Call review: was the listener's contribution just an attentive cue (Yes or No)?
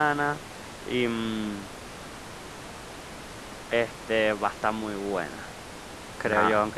Yes